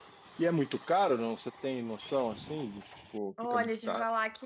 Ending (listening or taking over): taking over